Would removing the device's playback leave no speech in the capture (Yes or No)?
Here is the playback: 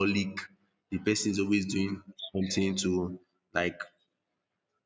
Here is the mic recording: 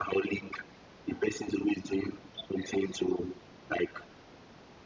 Yes